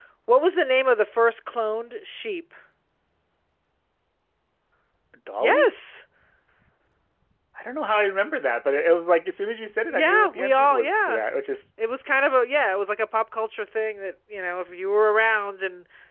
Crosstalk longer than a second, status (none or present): present